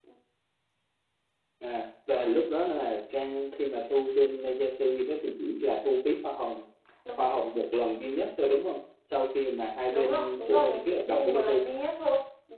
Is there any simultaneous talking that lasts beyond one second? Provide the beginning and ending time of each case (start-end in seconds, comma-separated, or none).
9.9-11.6